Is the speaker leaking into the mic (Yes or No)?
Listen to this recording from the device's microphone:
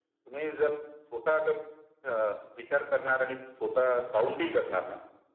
Yes